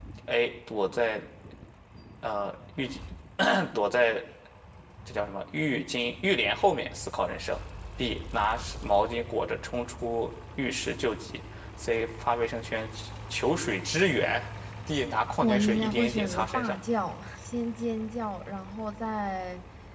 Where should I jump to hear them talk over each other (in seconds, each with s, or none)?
15.4 s